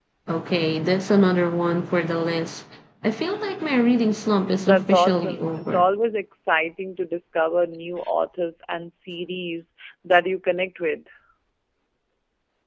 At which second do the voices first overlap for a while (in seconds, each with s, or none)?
4.6 s